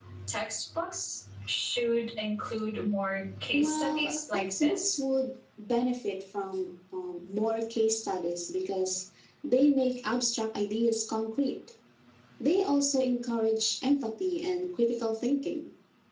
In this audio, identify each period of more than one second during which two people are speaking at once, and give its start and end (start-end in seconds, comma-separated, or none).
3.5-5.0